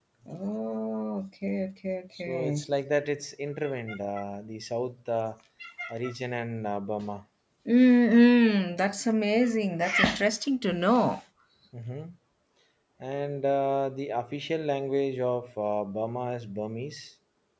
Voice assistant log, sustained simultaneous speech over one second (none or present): none